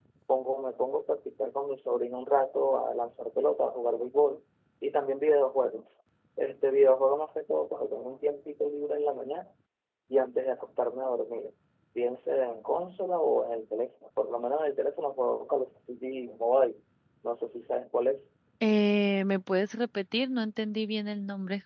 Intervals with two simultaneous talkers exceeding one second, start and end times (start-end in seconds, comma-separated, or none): none